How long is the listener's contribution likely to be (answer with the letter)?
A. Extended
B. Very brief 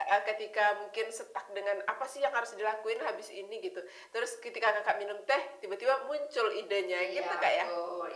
A